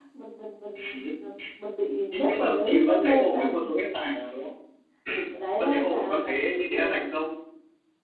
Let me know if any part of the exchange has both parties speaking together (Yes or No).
Yes